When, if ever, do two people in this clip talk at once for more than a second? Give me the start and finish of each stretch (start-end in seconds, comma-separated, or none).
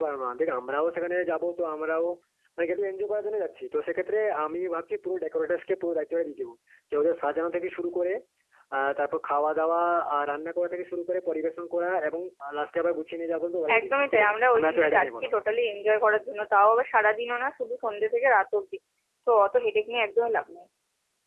13.8-15.3